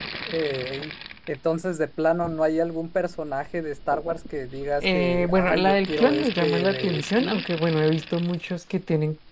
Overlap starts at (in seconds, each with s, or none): 4.8 s